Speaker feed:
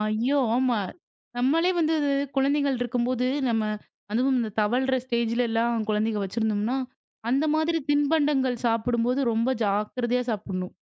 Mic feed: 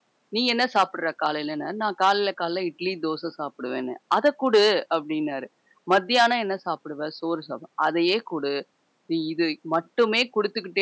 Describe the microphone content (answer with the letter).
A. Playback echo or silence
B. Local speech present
B